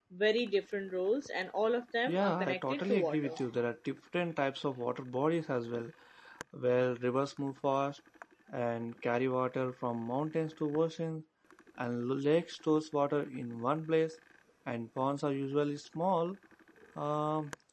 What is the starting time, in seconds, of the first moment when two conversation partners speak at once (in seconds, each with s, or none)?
2.1 s